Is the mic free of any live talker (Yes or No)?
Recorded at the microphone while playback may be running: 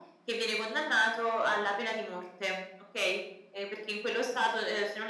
Yes